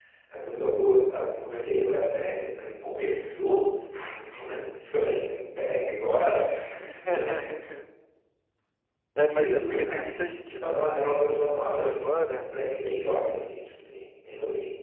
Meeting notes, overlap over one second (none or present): present